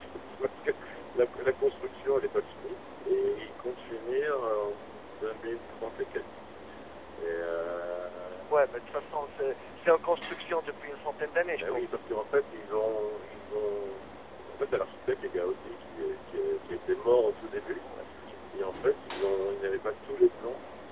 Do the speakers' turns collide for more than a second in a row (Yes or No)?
No